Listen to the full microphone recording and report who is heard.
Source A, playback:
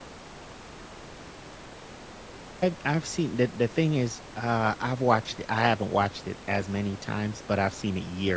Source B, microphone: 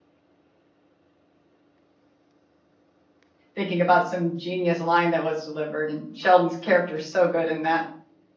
user only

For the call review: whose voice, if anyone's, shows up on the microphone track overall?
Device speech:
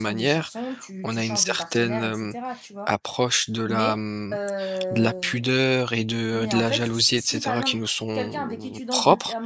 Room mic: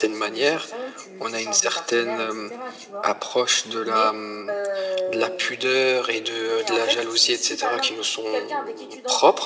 echo only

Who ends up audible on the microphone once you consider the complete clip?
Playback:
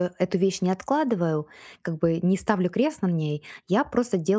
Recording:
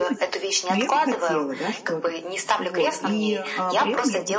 both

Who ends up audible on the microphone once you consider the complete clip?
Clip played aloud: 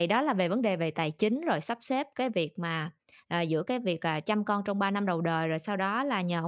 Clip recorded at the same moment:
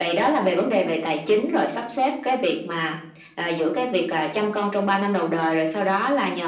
echo only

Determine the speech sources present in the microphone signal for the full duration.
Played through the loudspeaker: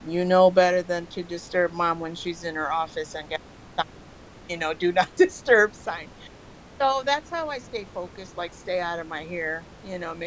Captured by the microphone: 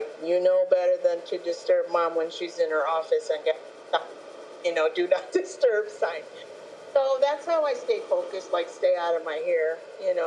echo only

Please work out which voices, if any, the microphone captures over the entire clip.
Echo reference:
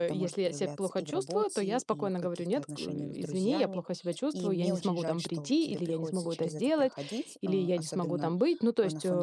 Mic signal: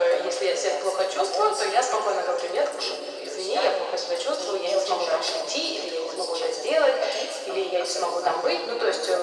echo only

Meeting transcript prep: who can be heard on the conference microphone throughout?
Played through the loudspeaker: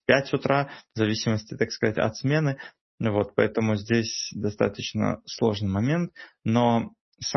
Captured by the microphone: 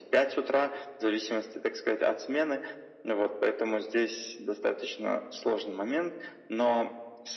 echo only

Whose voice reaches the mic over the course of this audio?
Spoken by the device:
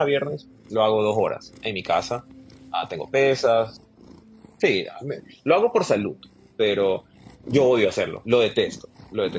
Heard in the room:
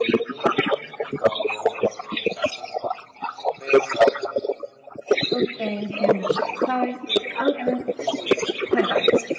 both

